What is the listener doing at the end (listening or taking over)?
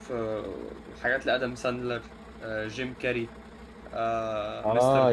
taking over